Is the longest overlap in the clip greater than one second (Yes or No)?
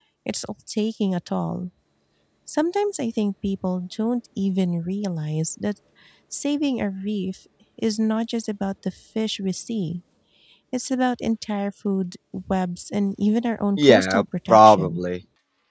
Yes